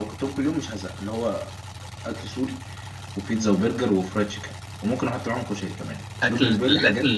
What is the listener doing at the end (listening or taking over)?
taking over